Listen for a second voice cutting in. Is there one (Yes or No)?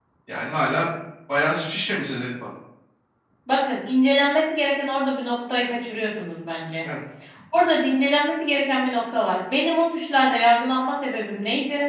No